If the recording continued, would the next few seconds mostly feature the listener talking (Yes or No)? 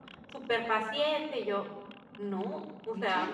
No